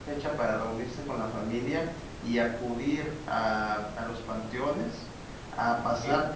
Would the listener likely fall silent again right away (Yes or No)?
Yes